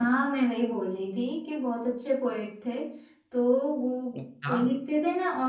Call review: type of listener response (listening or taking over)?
listening